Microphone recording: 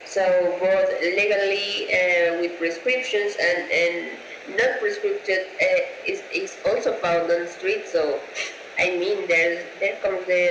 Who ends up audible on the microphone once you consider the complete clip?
echo only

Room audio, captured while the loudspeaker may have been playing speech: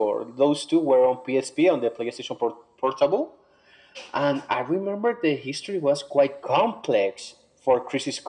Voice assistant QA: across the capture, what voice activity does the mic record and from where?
echo only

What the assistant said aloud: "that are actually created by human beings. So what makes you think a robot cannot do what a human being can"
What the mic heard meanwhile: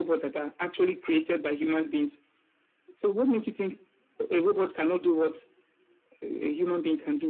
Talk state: echo only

